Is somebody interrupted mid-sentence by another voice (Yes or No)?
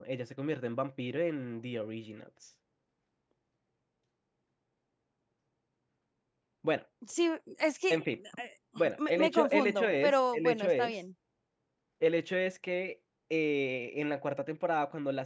Yes